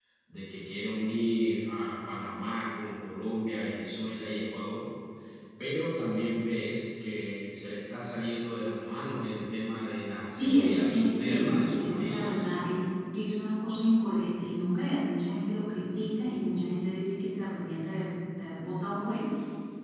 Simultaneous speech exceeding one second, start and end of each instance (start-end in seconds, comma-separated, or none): 10.4-12.5